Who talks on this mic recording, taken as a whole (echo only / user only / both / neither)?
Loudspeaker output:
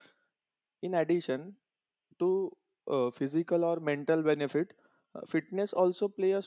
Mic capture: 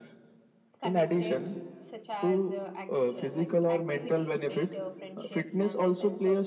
both